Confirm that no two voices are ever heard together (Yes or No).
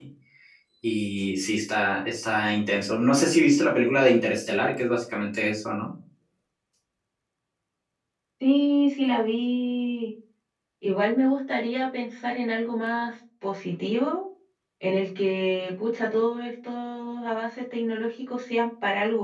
Yes